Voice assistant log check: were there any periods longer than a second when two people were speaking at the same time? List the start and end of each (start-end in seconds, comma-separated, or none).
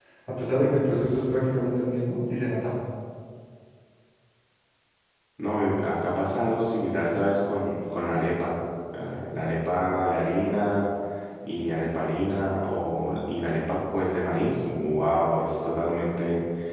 none